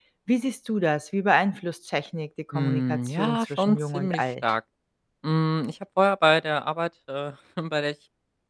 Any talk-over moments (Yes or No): Yes